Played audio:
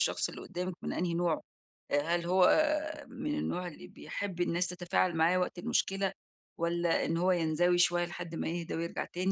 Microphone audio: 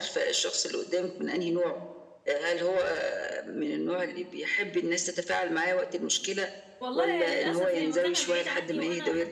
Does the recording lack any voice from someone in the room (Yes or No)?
No